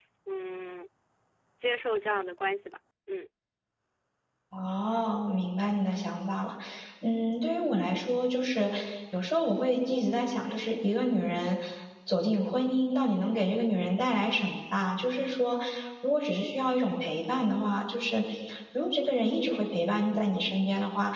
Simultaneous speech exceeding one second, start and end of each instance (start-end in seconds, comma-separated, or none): none